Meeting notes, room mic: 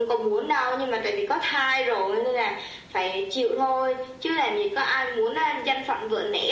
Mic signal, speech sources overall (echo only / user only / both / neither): echo only